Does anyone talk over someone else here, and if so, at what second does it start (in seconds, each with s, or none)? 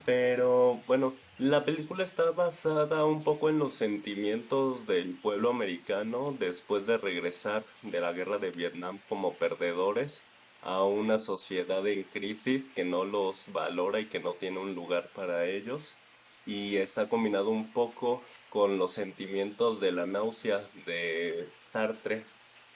none